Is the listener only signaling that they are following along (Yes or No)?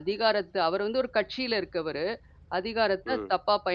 Yes